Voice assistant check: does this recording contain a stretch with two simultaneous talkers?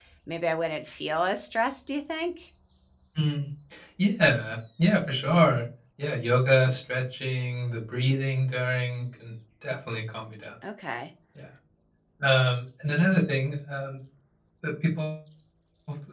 No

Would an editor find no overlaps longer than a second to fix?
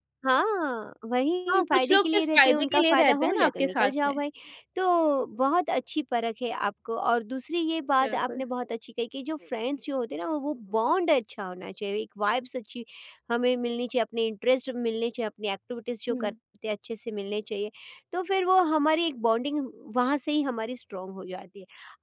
No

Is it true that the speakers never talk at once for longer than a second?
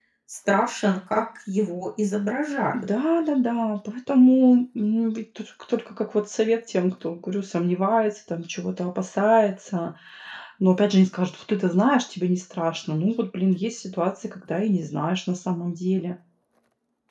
Yes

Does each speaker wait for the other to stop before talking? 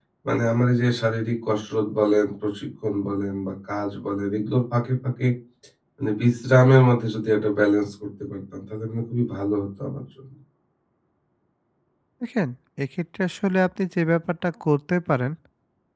Yes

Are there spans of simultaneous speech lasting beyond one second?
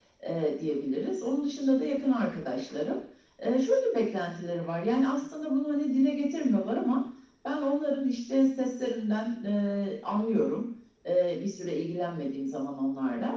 No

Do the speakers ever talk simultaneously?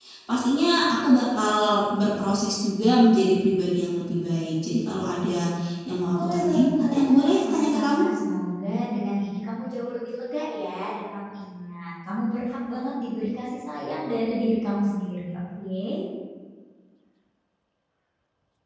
Yes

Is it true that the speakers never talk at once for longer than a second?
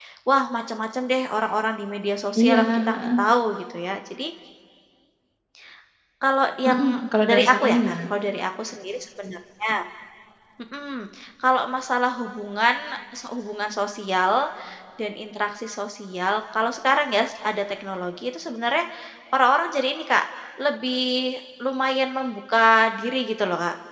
No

